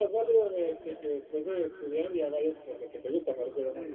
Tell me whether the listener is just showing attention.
No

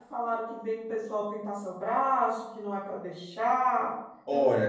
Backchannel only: No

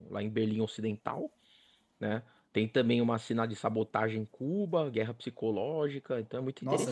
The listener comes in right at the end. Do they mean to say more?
Yes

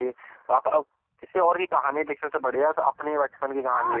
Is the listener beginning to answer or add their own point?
Yes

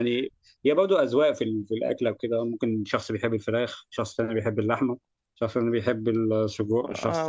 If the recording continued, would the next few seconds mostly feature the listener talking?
Yes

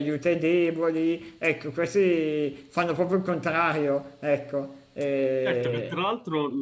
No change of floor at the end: No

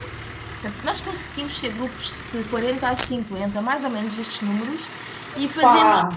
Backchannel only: Yes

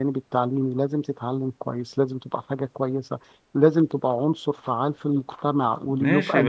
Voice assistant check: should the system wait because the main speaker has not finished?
No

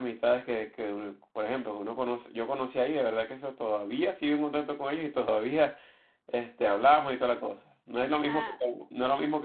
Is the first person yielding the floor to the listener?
No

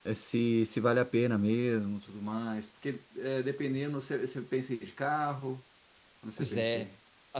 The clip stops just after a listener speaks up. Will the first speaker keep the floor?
No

